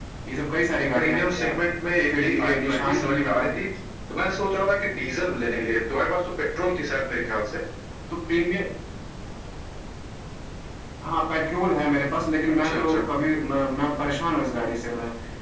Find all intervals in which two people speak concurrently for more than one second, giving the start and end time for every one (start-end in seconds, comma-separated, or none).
2.2-3.6